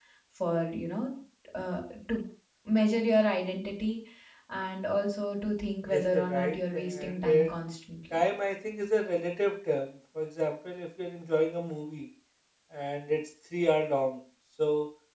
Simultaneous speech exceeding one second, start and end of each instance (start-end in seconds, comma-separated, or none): 5.9-7.5